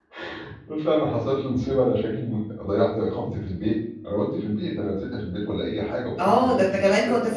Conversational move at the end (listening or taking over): taking over